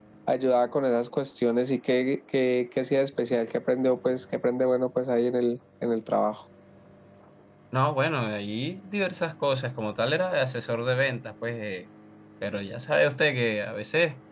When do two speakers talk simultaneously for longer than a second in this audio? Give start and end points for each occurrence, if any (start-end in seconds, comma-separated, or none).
none